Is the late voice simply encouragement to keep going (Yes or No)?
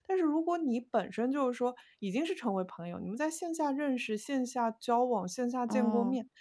Yes